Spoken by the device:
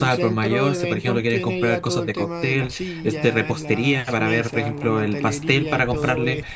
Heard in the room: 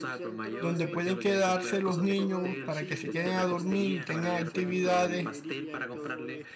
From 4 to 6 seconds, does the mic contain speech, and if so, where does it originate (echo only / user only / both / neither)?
both